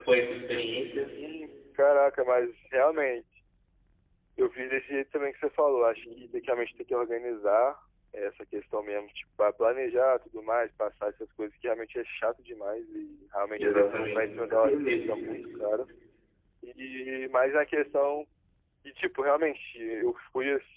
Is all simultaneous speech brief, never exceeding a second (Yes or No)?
No